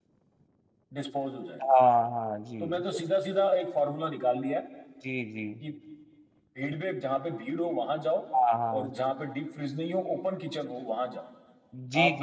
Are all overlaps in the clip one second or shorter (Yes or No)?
Yes